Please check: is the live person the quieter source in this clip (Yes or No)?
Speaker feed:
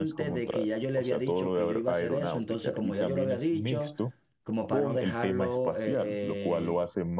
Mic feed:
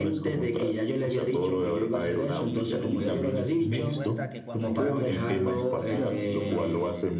Yes